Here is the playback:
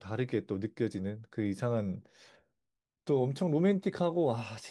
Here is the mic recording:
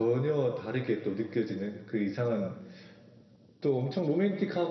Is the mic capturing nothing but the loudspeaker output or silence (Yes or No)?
Yes